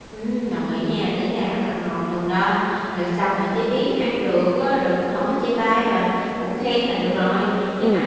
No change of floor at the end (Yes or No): Yes